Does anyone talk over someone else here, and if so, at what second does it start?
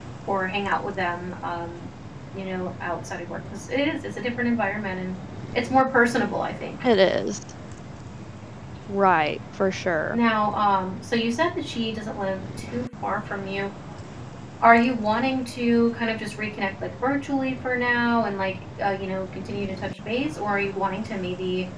none

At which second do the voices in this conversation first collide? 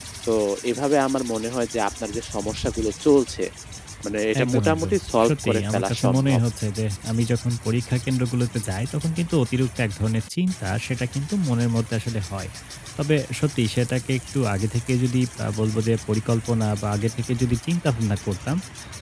4 s

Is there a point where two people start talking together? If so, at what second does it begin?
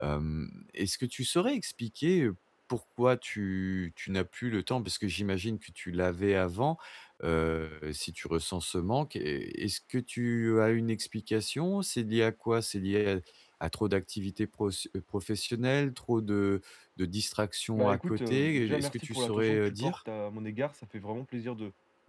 18 s

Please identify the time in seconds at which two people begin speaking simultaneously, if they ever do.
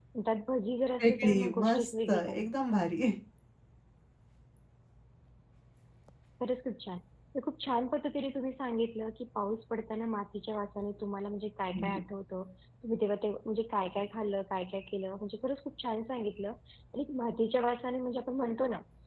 1 s

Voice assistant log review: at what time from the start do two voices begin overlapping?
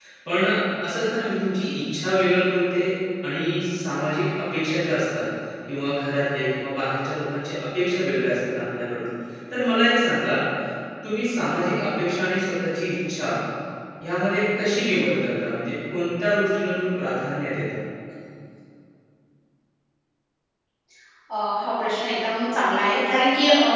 none

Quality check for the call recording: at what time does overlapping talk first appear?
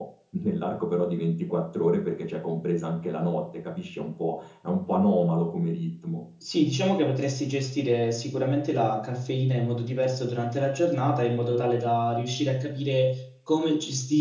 none

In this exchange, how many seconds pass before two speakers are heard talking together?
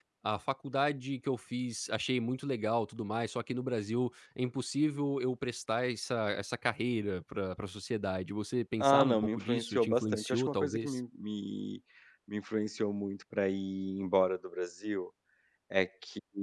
9 s

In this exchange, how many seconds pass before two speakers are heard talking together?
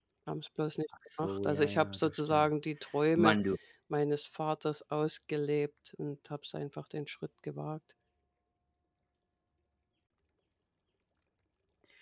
1 s

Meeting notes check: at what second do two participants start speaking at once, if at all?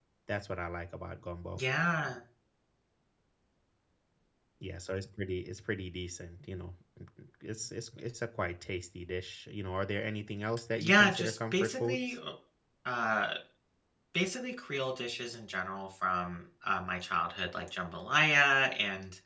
11 s

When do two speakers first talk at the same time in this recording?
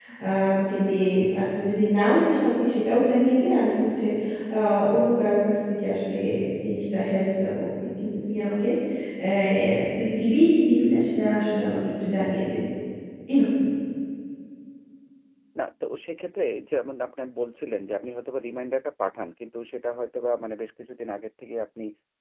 none

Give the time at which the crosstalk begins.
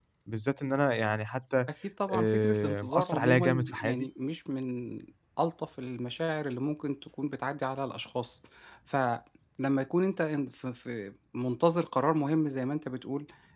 2 s

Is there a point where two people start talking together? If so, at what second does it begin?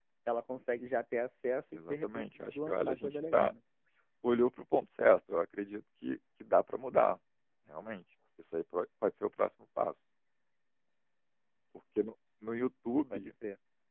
2 s

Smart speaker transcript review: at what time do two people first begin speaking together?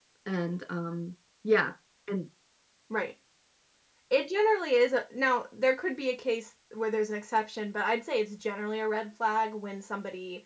none

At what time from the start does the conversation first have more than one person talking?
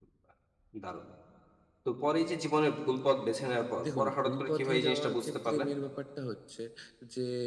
4 s

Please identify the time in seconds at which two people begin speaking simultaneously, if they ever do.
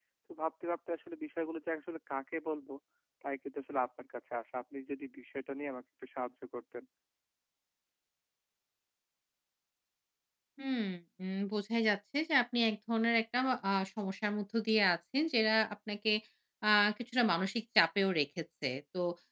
none

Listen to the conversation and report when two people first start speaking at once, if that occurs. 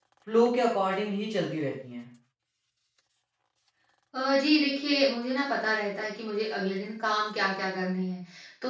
none

